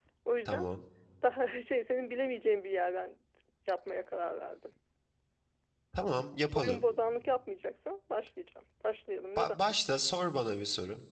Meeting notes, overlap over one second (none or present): none